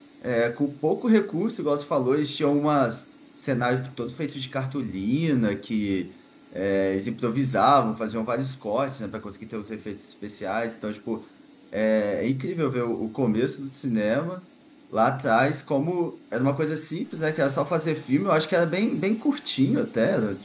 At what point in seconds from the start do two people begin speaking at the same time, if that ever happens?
none

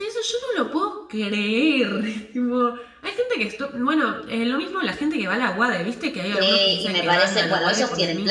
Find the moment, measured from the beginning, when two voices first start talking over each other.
6.3 s

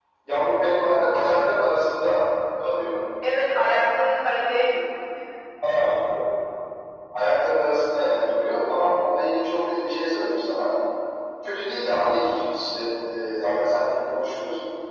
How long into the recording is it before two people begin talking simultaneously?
none

